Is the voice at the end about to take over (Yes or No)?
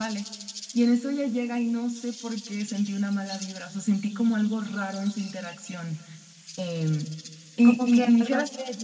Yes